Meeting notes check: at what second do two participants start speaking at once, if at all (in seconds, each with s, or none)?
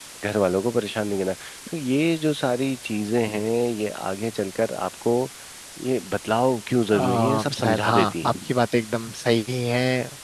6.9 s